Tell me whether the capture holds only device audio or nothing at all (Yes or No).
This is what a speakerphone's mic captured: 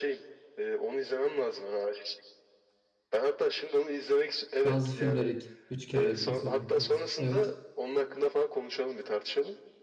No